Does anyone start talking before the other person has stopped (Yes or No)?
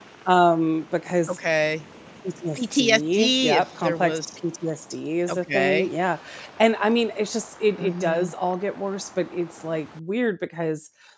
Yes